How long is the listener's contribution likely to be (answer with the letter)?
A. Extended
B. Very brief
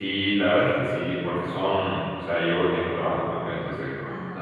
B